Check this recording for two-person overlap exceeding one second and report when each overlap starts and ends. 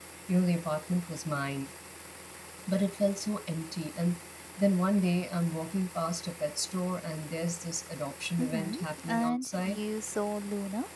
8.4-9.8

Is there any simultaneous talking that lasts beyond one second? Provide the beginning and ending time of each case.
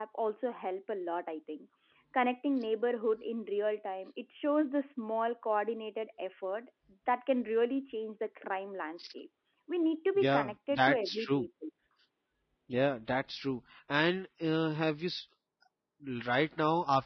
10.2-11.5

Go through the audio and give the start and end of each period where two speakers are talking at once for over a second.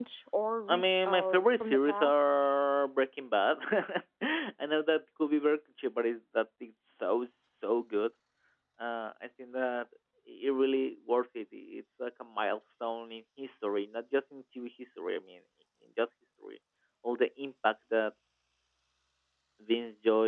0.7-2.3

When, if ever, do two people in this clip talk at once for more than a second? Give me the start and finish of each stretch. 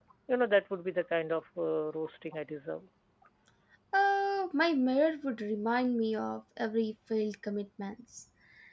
none

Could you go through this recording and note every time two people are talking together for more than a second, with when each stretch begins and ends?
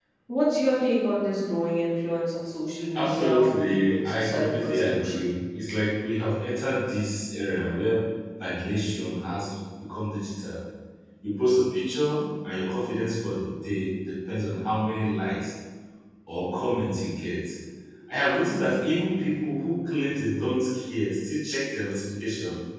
3.0-5.3

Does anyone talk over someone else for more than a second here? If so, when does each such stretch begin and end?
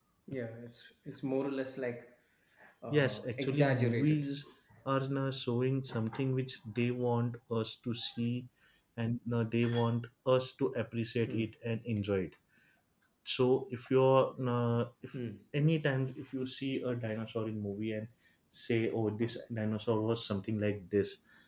2.9-4.3

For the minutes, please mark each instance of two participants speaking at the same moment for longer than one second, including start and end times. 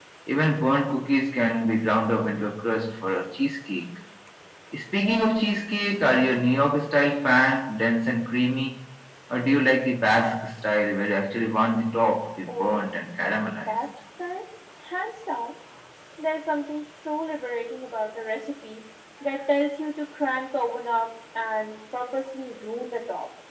none

